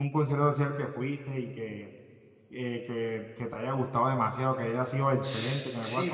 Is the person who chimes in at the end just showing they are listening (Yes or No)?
No